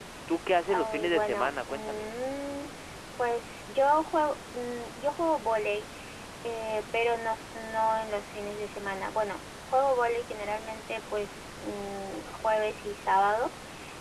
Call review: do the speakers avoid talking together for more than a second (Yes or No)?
No